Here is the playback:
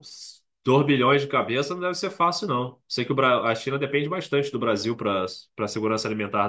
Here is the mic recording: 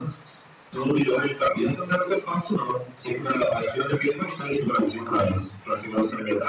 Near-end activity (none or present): none